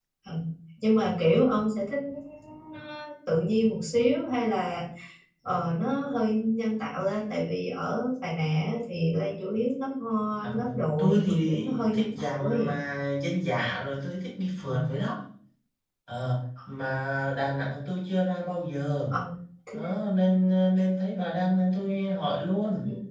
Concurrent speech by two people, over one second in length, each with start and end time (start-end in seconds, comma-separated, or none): 10.4-12.7